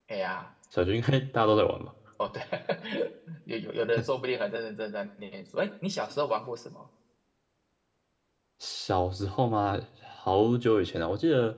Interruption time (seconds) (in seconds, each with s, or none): none